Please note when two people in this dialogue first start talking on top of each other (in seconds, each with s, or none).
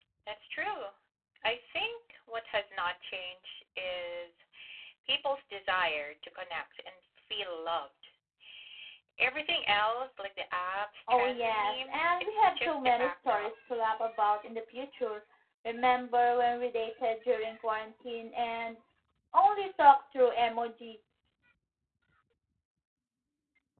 11.1 s